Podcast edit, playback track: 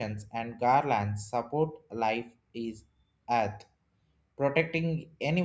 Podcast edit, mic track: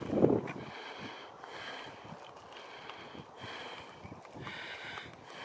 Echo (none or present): none